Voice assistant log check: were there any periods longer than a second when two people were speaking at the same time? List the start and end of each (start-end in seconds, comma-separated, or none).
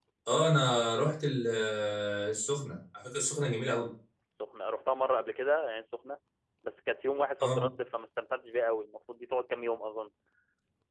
none